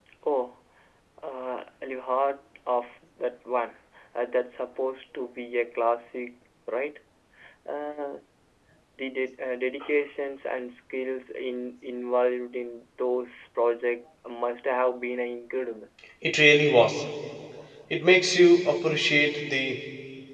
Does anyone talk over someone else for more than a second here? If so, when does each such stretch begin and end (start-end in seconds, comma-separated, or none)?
none